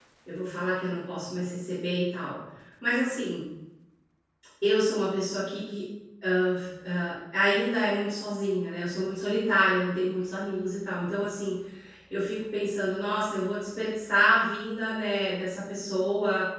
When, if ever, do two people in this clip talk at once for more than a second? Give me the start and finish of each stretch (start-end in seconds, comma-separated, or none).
none